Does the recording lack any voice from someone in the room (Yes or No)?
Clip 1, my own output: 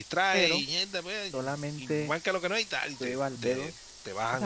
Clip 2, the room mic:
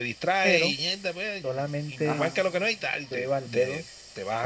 No